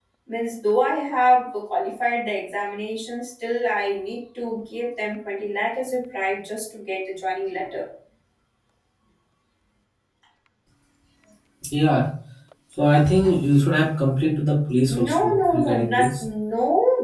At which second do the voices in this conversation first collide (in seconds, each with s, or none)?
14.9 s